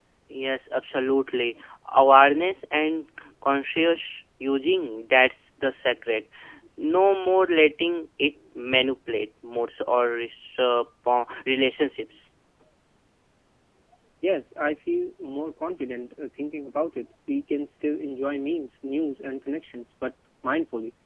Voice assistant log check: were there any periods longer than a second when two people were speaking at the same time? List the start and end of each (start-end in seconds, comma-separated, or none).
none